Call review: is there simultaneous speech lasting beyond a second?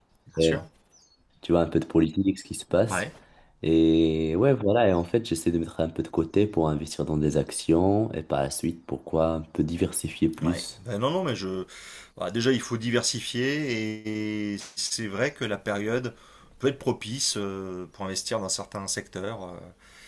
No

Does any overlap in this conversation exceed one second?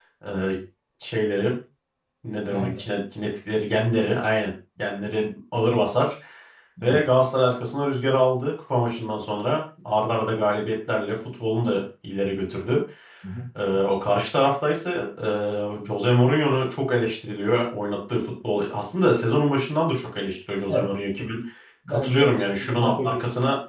Yes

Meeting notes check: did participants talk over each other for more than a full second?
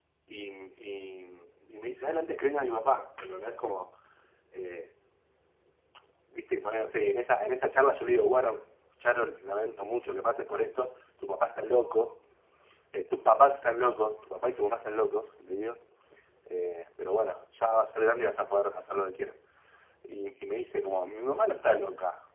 No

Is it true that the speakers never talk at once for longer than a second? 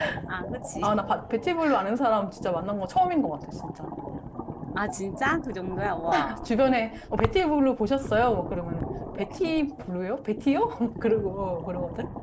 Yes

